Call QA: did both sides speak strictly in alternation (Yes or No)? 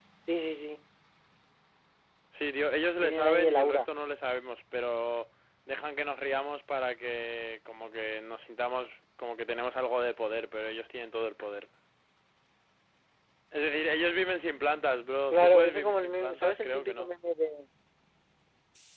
No